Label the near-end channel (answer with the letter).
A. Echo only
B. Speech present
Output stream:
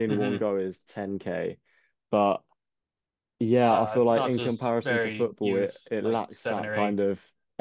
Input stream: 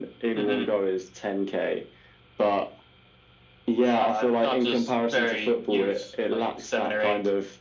A